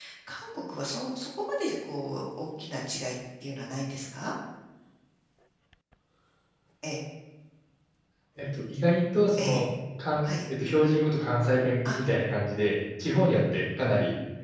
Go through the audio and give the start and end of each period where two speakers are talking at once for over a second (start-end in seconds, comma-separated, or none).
none